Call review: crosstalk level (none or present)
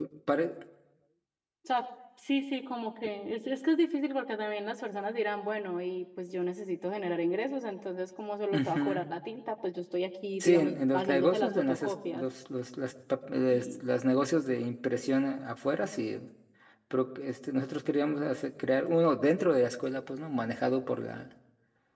present